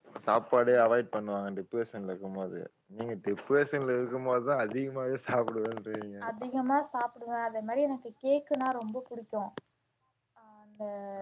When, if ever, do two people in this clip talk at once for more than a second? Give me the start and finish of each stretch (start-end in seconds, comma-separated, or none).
none